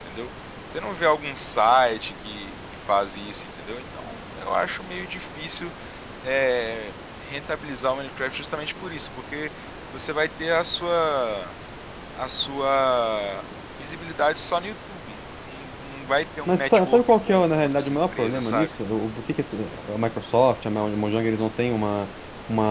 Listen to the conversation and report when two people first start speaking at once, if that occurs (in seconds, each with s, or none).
16.5 s